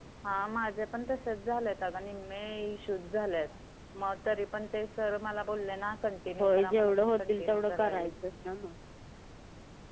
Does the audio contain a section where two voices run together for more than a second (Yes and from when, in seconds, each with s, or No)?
Yes, from 6.4 s